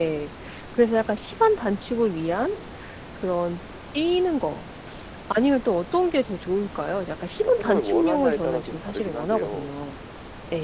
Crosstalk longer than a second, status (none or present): present